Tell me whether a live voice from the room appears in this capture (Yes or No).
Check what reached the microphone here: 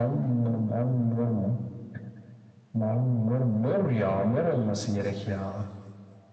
No